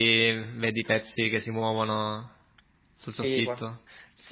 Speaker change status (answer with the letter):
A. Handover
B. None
A